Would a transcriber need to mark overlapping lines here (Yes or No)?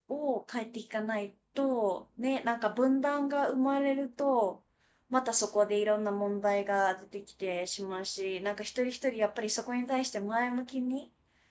No